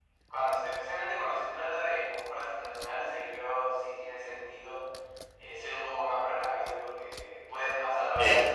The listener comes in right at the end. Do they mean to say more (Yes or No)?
No